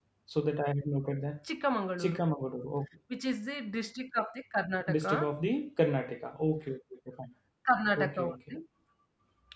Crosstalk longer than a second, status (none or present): none